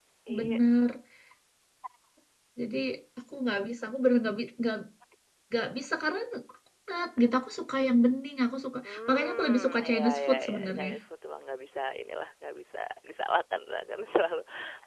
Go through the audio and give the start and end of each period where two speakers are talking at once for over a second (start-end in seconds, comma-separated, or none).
8.8-10.9